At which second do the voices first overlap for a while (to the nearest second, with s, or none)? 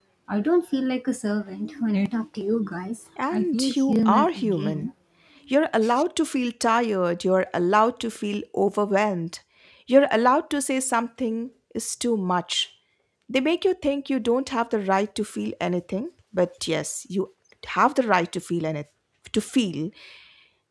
3 s